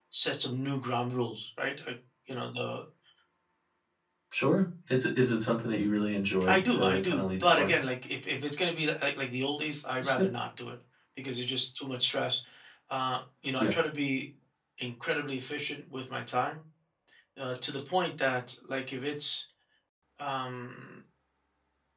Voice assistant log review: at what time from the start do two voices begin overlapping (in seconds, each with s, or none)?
6.5 s